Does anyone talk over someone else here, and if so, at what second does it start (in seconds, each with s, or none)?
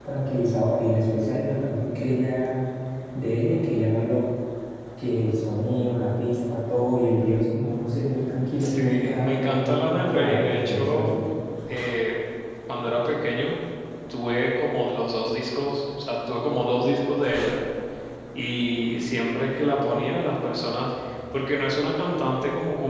8.6 s